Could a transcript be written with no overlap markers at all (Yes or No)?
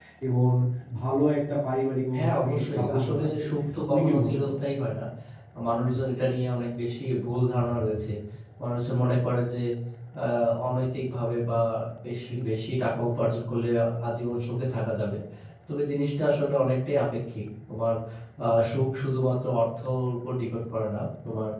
No